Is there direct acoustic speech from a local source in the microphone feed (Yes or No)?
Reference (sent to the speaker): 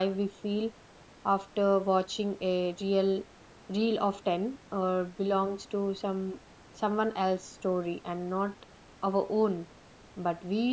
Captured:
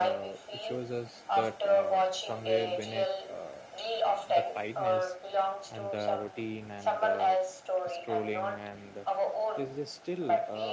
Yes